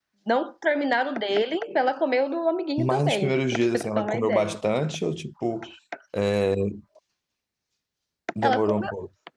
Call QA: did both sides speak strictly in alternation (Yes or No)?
No